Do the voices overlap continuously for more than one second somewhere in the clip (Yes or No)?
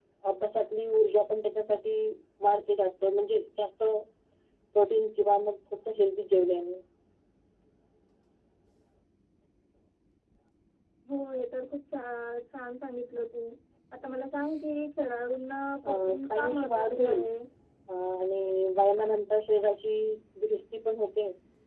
Yes